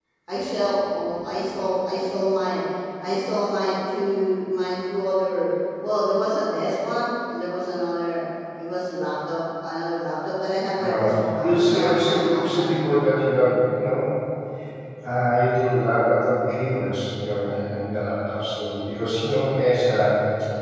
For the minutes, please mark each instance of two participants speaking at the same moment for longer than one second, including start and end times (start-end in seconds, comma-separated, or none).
10.8-13.0